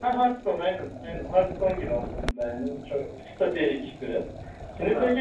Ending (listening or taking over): listening